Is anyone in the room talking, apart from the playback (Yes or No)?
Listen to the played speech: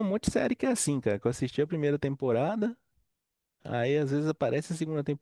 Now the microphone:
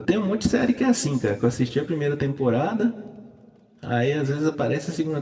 No